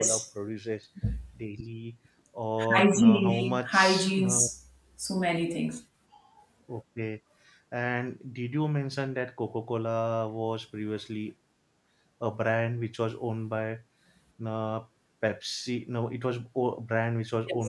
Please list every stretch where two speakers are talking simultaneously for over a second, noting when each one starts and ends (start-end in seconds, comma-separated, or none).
2.8-4.4